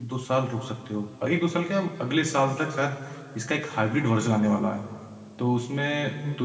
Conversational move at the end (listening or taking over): listening